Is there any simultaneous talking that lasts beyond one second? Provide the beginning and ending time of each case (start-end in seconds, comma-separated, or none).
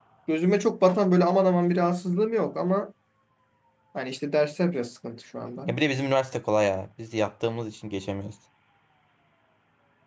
none